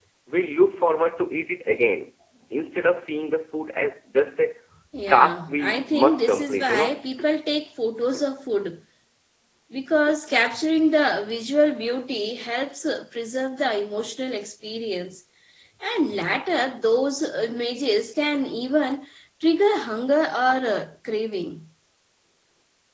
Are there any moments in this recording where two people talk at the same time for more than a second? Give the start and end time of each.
5.1-7.0

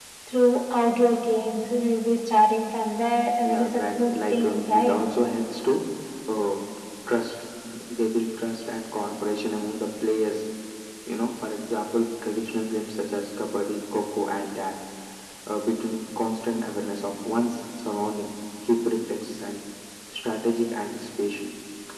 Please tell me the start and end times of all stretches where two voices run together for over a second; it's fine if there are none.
3.5-5.0

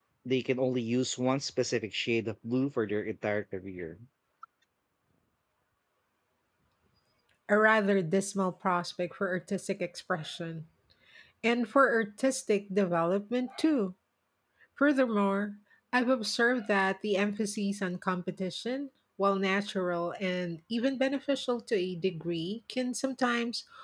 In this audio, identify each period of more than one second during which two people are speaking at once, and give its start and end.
none

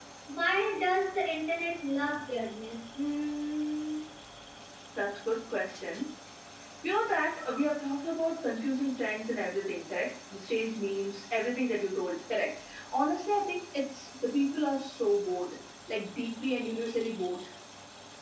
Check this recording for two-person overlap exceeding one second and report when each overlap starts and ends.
none

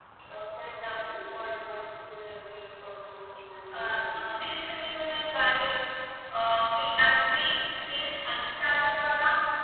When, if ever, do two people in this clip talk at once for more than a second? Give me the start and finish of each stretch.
none

